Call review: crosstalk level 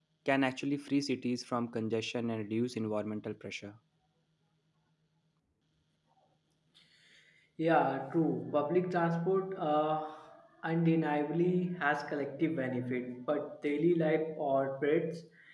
none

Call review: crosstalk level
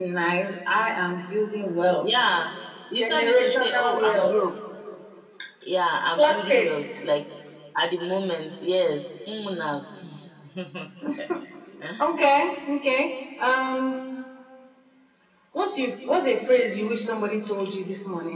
present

